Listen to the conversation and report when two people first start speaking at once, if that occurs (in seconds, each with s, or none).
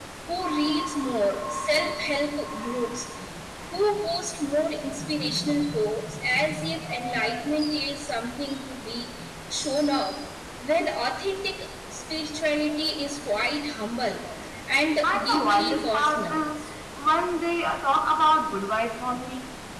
15.0 s